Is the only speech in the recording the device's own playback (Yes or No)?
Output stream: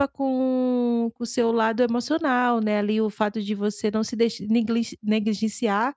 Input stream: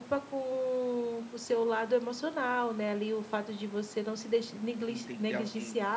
No